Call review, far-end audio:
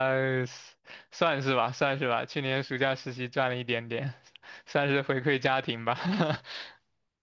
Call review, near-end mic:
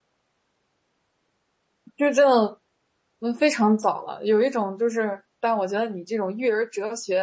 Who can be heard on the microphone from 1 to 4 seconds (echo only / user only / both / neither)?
user only